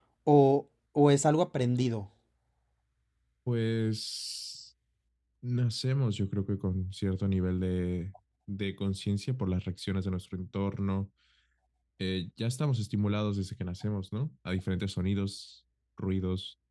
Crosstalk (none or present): none